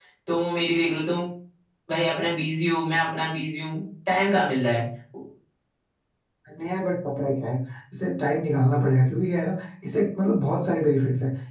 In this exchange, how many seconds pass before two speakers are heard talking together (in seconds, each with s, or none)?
none